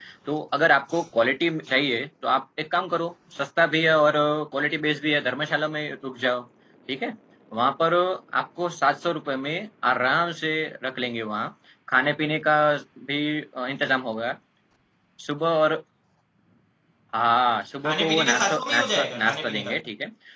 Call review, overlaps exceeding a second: present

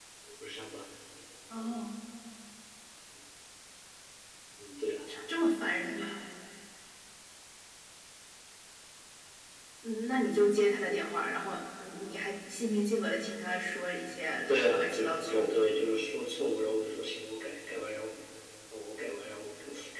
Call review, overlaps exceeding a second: present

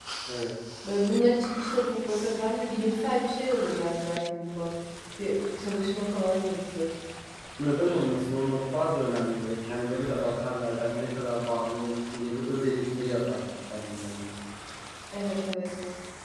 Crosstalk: none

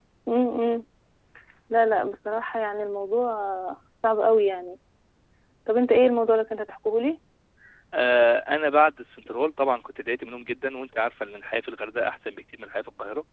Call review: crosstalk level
none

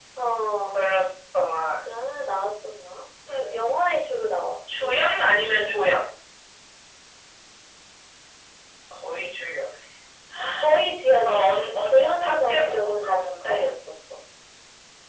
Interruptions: present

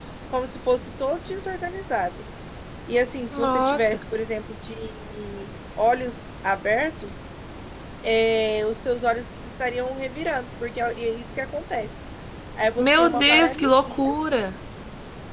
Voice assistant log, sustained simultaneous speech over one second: present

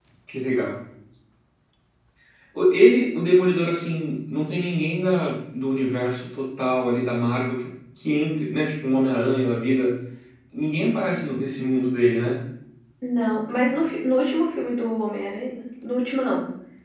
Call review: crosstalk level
none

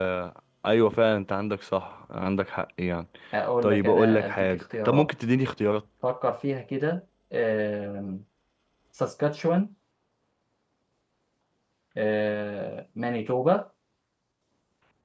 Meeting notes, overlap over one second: present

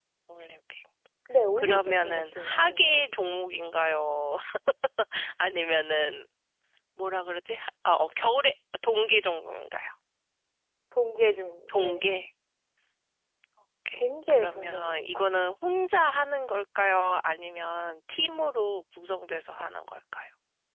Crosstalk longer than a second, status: present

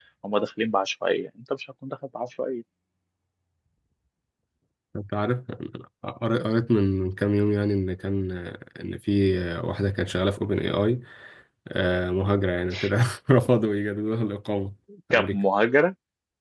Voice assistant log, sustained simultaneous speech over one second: none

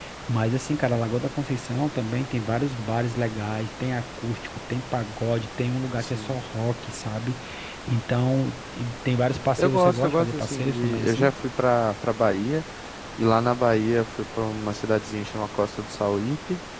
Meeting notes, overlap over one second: present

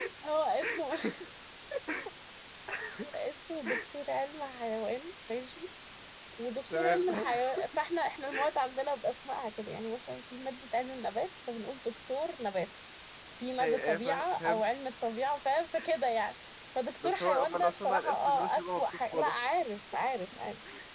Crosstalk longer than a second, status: present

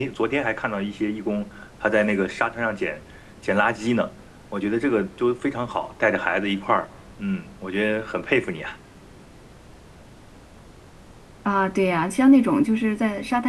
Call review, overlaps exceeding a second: none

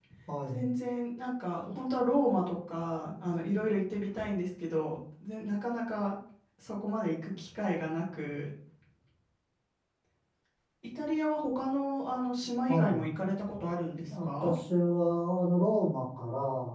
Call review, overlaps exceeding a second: none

